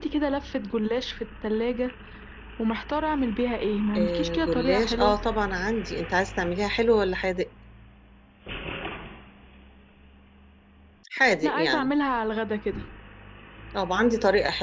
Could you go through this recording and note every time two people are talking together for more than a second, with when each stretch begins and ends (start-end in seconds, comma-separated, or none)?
4.0-5.2